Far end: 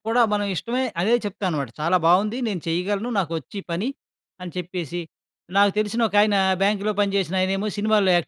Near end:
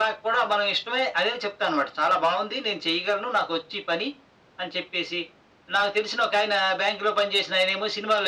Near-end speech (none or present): none